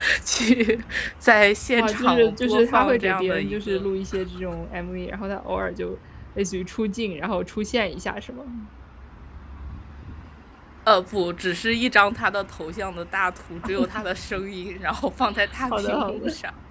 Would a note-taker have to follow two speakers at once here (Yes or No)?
Yes